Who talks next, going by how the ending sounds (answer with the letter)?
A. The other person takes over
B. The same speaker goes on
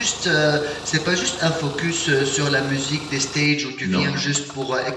B